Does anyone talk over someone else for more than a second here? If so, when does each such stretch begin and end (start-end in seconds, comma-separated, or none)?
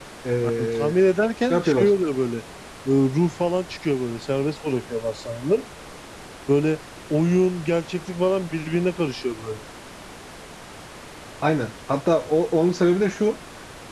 none